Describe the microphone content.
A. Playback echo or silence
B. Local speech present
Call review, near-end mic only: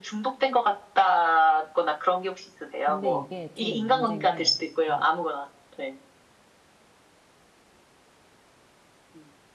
B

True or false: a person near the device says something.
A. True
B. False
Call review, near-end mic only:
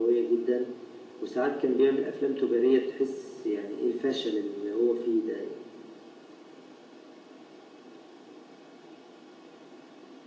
B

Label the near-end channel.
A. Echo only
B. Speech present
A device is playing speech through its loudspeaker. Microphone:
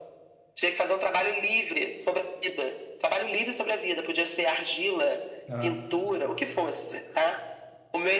B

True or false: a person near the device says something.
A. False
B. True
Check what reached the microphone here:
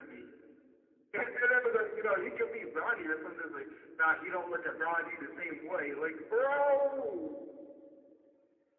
A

